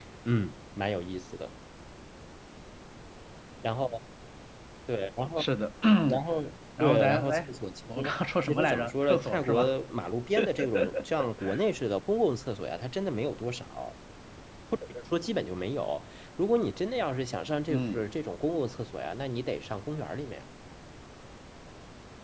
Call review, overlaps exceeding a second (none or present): present